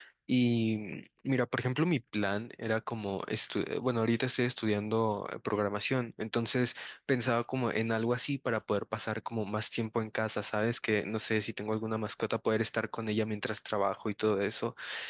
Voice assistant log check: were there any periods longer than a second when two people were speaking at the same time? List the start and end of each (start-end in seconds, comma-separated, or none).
none